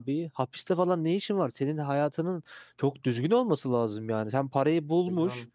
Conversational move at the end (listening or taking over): listening